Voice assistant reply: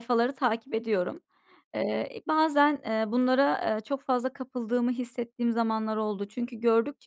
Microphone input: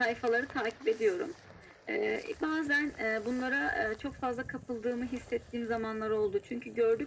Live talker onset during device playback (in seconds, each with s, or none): none